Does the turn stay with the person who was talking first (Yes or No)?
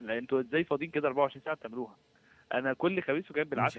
Yes